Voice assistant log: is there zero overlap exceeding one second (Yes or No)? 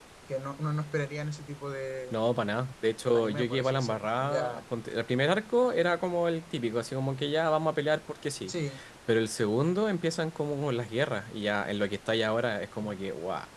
No